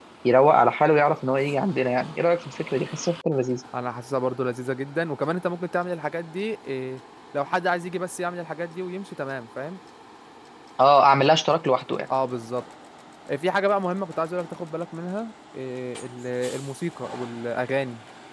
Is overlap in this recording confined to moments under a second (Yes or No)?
Yes